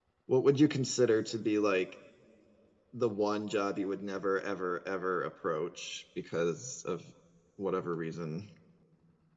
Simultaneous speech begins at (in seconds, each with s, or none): none